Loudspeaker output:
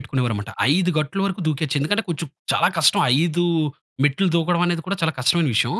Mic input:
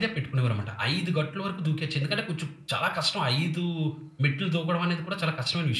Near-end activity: none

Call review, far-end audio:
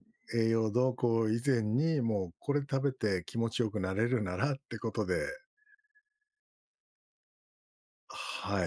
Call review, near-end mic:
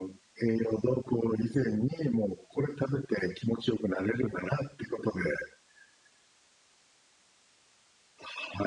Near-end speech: none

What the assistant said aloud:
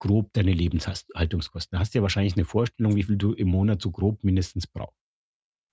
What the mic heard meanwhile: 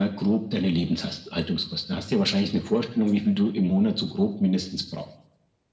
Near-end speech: none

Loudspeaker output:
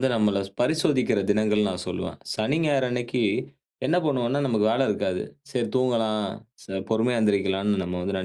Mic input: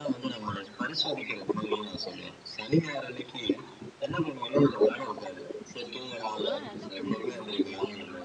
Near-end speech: present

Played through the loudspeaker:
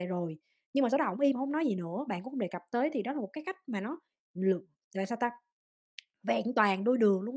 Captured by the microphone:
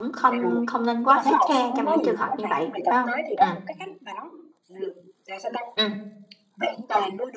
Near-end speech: present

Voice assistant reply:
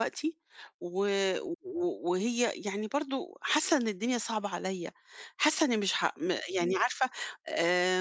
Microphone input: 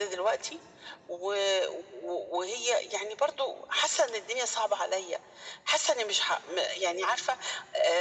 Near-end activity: none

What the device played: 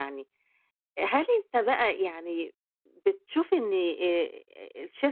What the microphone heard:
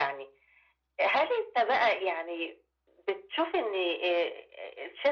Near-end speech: none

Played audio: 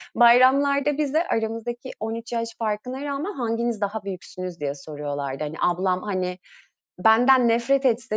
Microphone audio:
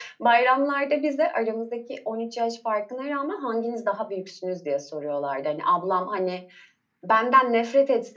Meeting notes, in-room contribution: none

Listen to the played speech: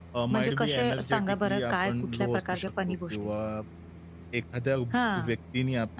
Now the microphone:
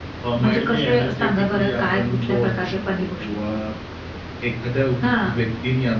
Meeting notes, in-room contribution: none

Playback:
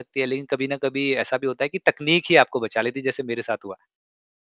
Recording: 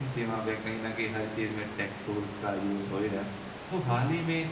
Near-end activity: present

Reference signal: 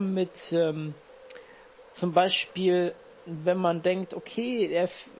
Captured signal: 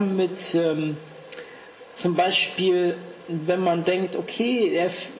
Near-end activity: none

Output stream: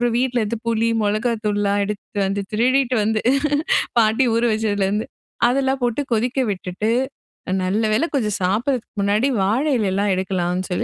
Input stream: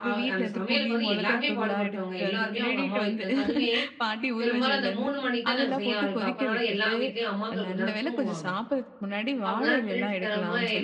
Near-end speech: present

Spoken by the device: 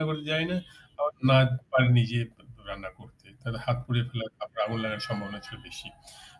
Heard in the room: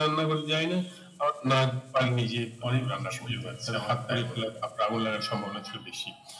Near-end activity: present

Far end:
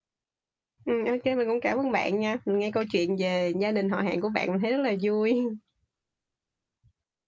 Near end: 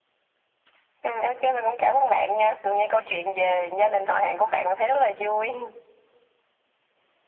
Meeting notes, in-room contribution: none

